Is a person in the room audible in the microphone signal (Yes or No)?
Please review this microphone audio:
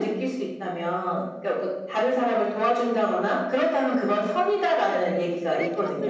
Yes